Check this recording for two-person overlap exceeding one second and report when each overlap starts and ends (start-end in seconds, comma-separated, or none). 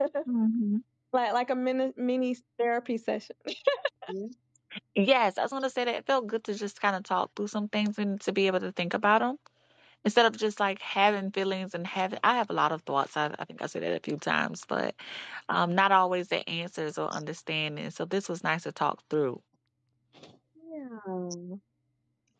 none